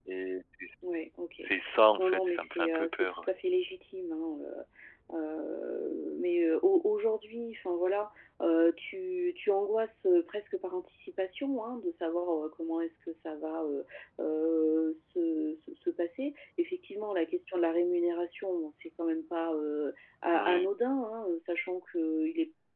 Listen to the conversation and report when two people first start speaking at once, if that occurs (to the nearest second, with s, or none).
2 s